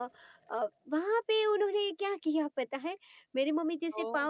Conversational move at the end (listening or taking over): listening